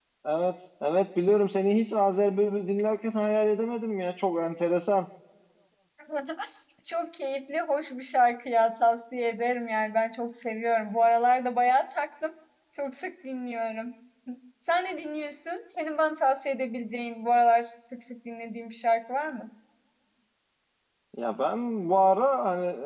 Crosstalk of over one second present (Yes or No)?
No